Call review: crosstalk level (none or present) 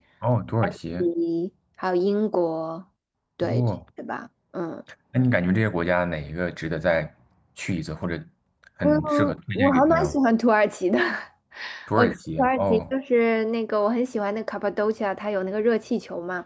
present